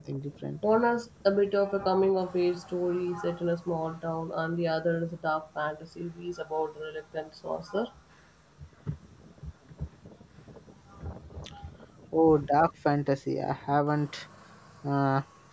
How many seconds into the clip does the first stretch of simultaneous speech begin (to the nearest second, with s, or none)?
none